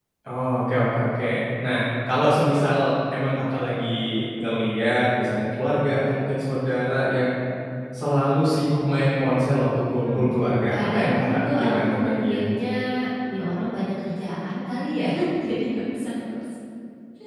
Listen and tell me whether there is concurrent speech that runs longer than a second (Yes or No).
Yes